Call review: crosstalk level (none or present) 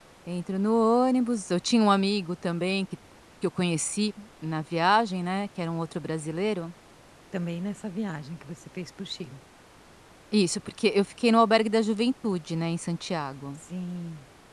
none